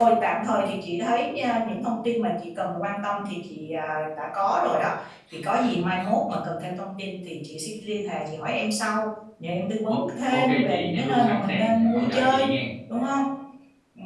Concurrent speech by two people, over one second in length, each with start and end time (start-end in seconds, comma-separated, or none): 9.9-12.5